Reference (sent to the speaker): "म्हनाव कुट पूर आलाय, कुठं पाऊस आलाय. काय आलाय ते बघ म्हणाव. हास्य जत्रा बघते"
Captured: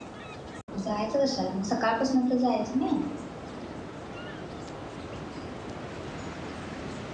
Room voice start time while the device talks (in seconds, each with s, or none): 0.8 s